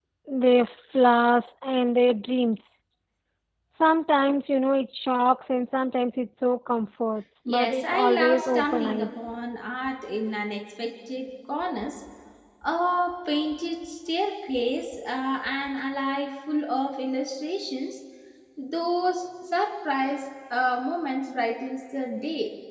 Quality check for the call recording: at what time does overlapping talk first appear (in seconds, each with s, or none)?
7.5 s